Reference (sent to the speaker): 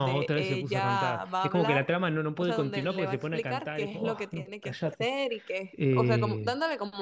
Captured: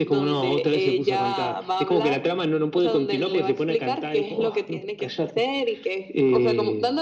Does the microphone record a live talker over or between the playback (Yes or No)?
No